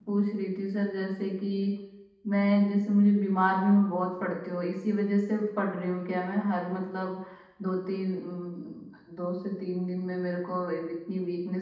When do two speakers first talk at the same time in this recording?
none

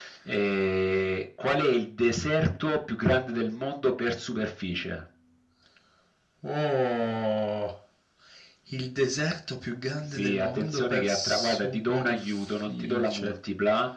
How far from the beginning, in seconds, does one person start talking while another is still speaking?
10 s

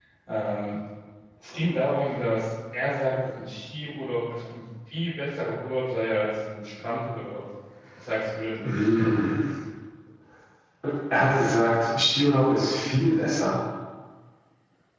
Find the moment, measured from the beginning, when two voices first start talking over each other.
none

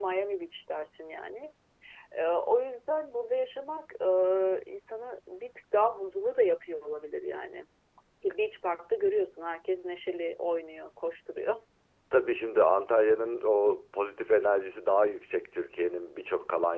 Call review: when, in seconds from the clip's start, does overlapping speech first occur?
none

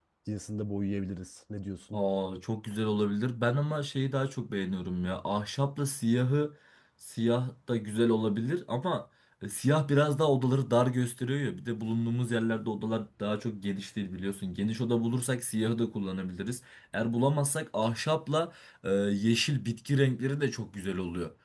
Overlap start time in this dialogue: none

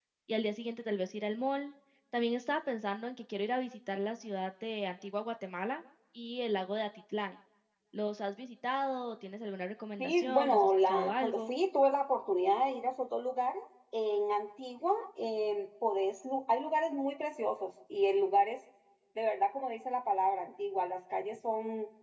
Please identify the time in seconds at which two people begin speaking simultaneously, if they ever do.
10 s

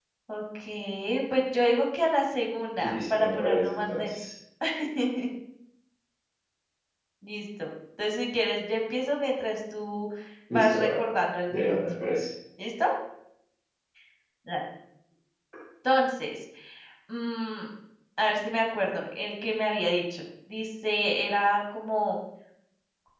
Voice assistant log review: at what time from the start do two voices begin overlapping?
3 s

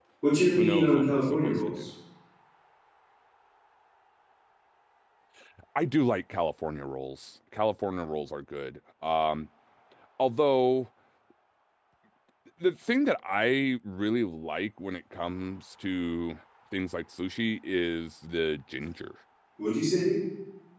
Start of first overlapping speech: 1 s

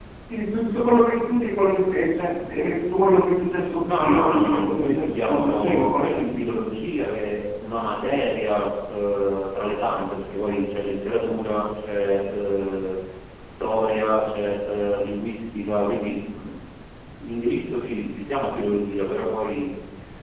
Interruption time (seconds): 4 s

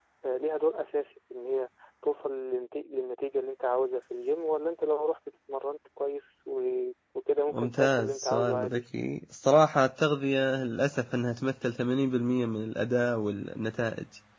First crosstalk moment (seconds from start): 7 s

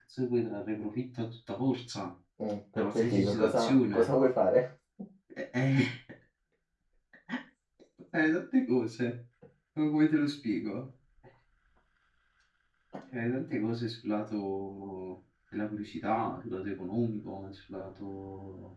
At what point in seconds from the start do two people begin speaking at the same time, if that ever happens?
3 s

